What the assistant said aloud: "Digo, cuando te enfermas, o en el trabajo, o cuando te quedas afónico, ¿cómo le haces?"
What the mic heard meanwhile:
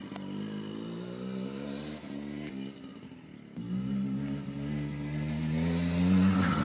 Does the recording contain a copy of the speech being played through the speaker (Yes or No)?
No